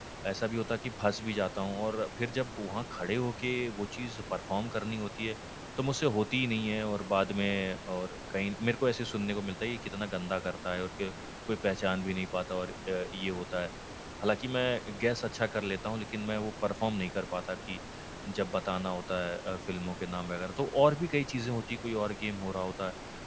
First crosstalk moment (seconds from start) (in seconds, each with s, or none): none